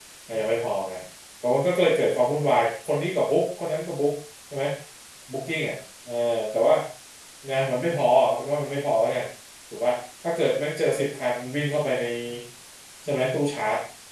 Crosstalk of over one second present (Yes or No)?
No